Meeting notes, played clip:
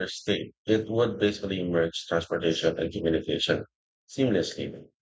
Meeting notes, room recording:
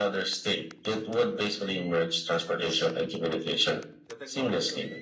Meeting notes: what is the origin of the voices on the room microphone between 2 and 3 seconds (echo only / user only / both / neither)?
echo only